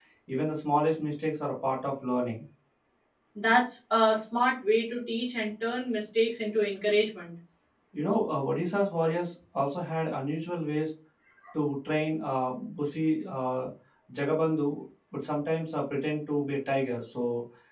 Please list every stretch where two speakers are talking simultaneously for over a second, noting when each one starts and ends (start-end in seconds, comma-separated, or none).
none